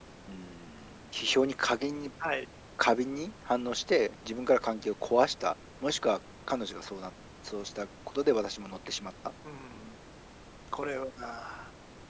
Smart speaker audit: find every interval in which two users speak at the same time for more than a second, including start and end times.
none

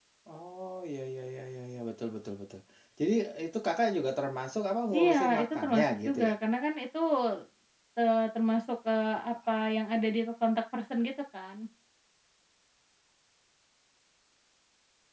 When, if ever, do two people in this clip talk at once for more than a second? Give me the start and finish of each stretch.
5.0-6.3

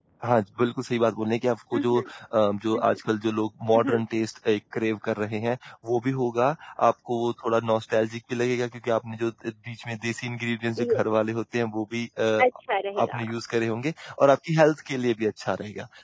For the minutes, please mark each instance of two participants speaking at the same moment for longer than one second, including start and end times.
none

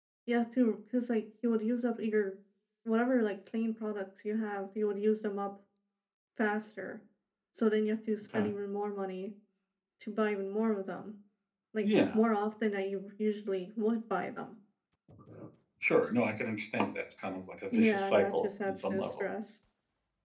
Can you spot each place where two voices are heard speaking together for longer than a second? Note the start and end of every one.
17.7-19.2

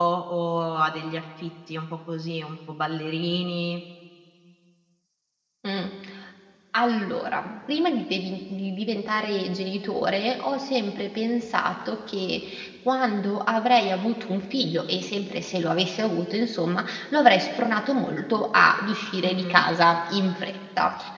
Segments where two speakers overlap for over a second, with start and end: none

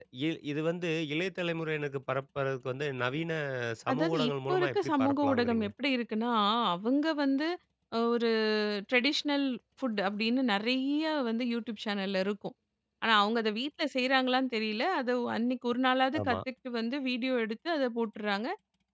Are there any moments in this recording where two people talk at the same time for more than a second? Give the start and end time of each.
3.9-5.7

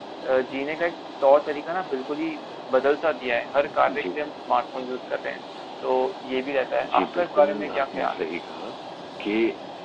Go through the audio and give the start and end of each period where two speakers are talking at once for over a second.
6.8-8.2

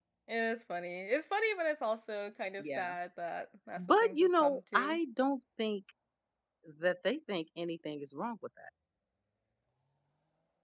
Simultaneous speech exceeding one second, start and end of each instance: 3.8-5.0

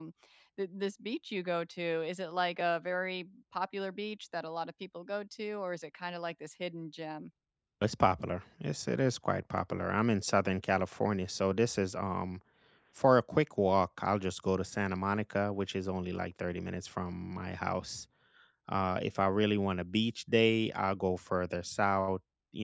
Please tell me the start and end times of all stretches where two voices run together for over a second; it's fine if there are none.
none

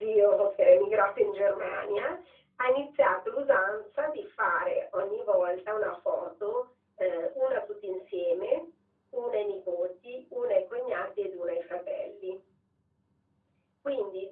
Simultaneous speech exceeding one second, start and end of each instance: none

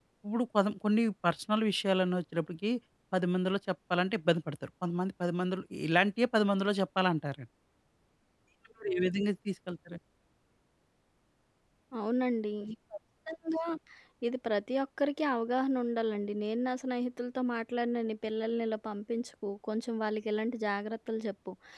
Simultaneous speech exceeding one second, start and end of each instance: none

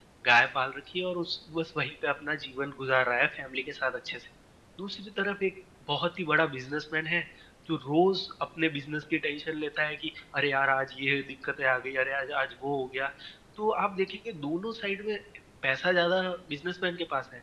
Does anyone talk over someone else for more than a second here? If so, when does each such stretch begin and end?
none

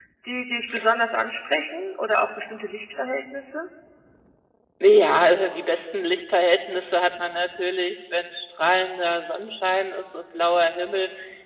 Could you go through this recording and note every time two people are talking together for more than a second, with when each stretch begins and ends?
none

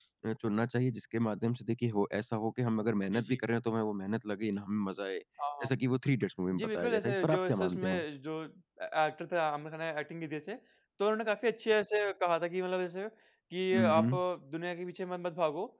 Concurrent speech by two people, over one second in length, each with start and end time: 6.6-8.0

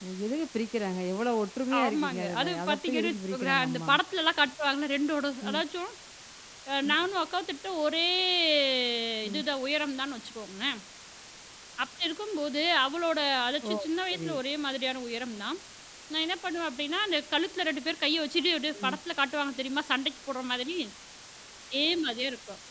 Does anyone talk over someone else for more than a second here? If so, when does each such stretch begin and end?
1.8-3.9

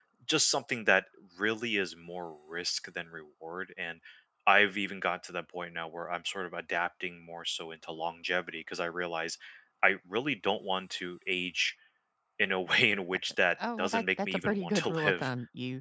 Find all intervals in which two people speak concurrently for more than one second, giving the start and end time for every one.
13.8-15.3

